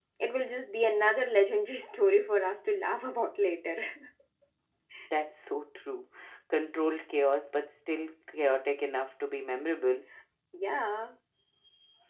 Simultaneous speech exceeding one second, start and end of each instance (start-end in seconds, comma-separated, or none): none